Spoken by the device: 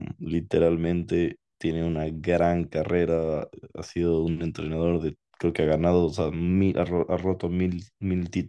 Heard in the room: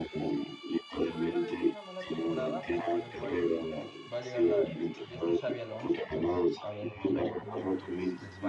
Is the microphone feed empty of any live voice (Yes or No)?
No